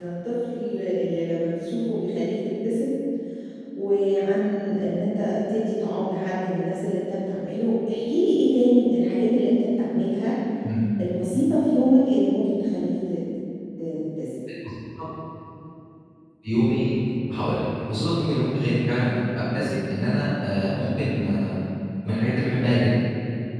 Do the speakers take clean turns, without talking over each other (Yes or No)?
Yes